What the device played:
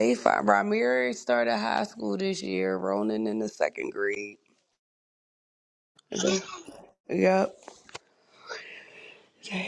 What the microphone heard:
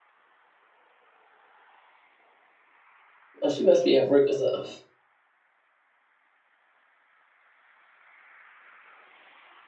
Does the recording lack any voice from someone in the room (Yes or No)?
No